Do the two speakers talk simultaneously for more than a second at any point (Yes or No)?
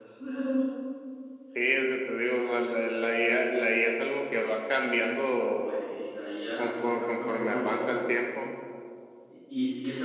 Yes